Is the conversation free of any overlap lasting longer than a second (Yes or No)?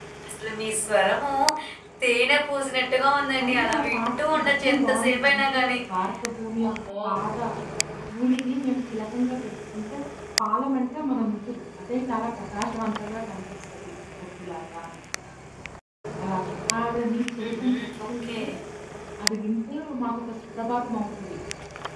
No